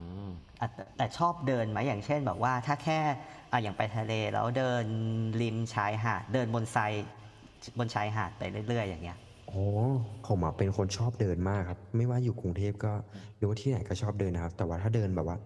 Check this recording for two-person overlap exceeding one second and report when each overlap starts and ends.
none

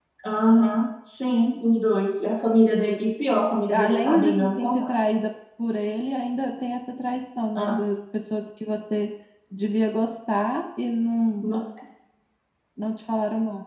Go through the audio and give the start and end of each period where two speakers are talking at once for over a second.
3.7-4.9

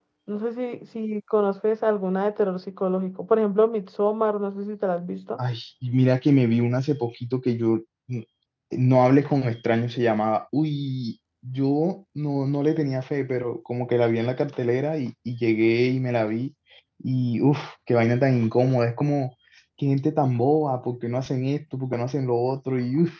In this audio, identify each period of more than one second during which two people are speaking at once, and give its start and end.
none

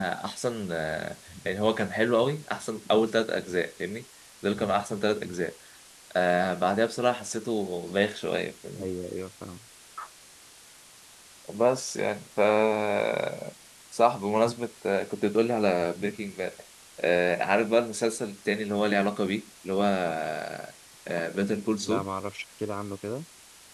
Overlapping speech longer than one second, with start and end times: none

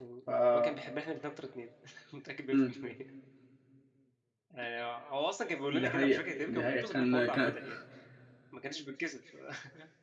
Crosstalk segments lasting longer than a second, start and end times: 5.7-7.5

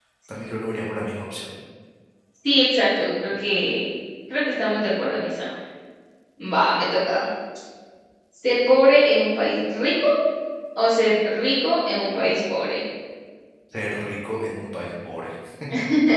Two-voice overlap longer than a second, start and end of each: none

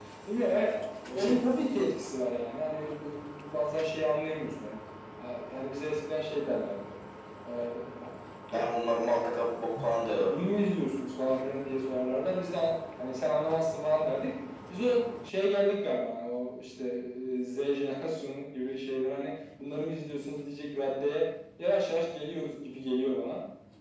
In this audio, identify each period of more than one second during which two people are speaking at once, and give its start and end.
none

